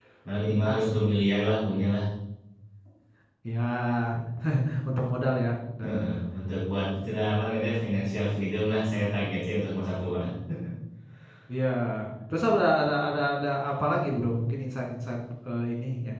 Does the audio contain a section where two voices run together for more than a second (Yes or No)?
No